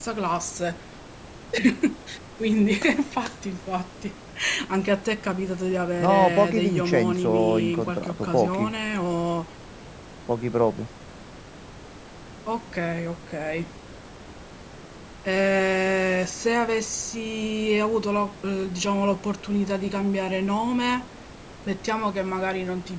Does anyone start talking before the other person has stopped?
Yes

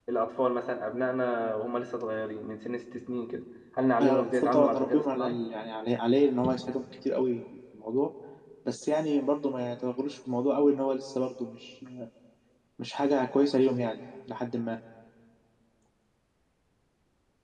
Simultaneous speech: Yes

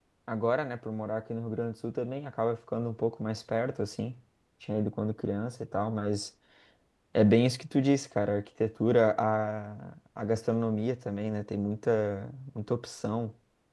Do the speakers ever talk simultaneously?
No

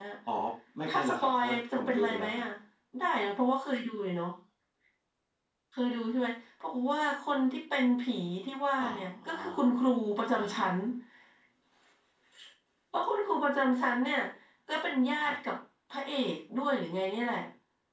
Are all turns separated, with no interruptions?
No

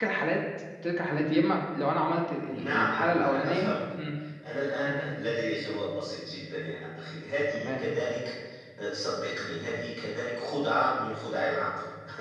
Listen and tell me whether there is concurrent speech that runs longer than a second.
Yes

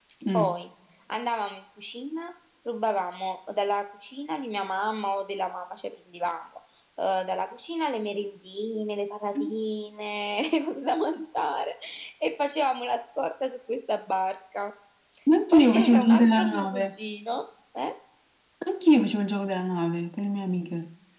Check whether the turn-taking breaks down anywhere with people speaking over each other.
Yes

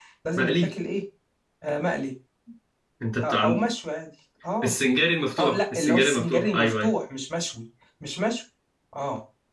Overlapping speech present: Yes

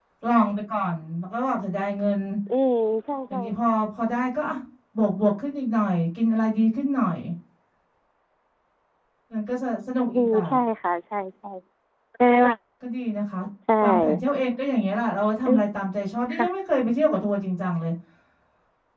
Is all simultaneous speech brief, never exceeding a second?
Yes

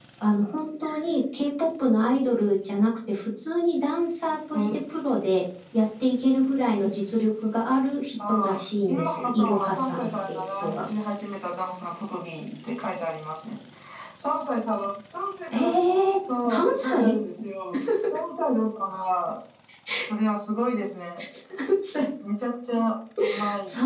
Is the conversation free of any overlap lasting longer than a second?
No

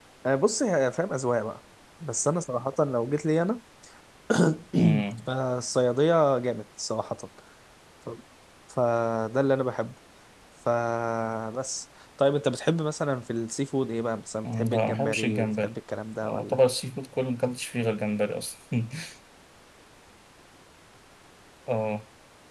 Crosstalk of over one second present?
Yes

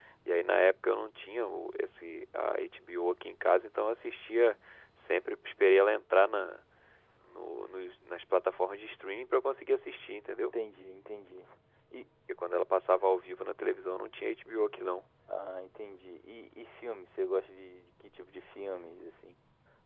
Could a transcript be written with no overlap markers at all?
Yes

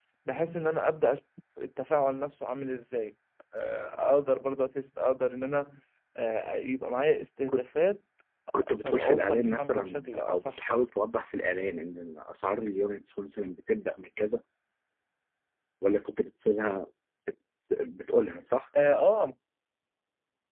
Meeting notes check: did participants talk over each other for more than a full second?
Yes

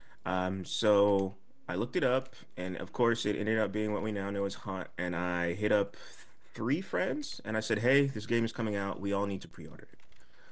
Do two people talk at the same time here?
No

